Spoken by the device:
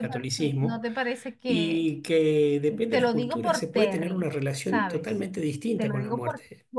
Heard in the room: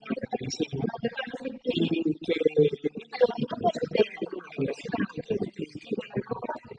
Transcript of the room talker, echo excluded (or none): none